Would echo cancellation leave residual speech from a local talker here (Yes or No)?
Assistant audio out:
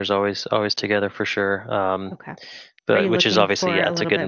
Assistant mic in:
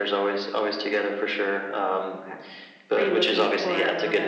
No